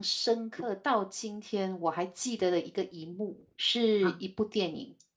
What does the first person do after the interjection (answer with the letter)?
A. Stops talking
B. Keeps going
B